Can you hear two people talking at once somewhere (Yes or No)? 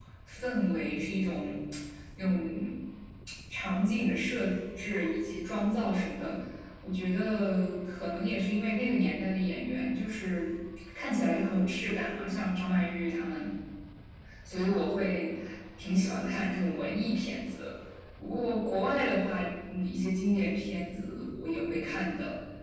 No